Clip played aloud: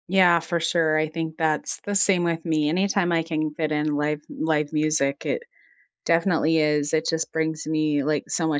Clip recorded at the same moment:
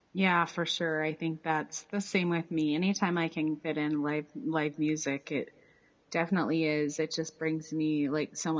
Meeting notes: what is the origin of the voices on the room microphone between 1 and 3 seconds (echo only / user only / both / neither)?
echo only